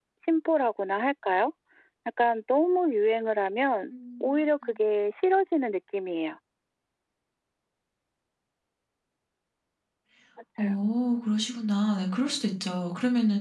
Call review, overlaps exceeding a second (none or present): none